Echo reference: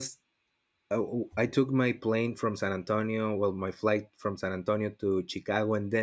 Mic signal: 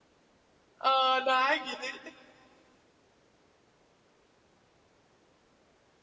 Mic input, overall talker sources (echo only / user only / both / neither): user only